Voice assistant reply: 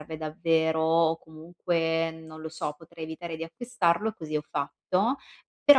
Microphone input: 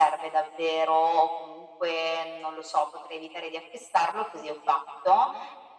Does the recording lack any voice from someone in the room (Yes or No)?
Yes